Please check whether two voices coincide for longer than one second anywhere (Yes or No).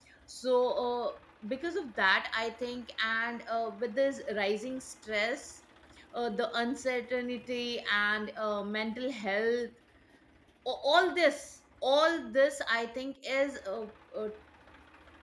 No